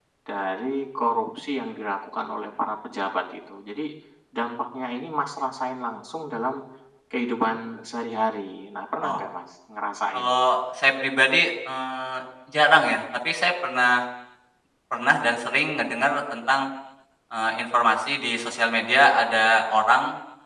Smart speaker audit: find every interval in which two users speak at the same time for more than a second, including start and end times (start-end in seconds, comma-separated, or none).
none